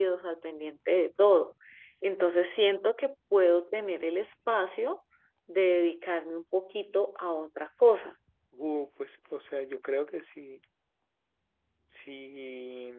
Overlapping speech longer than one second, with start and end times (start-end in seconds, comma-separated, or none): none